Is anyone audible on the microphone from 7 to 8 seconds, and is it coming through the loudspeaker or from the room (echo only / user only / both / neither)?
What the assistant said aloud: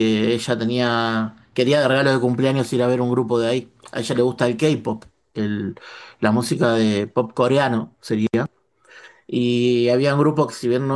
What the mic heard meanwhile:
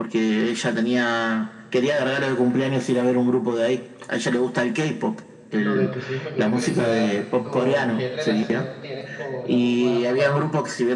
both